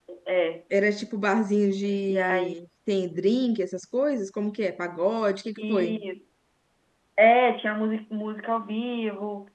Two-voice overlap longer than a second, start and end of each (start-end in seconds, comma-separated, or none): none